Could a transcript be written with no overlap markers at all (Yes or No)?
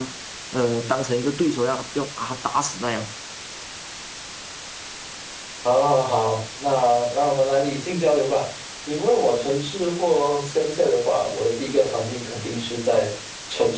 Yes